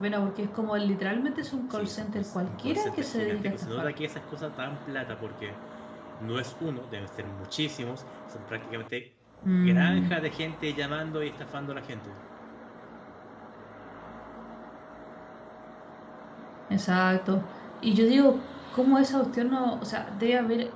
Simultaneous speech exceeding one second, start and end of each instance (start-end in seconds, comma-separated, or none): 1.7-3.9